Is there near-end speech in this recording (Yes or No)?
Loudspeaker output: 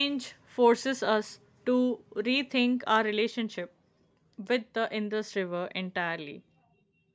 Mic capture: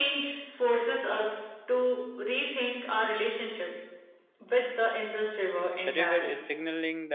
Yes